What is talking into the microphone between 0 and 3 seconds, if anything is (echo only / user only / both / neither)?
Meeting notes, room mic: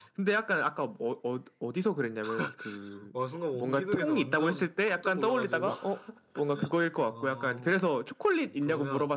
echo only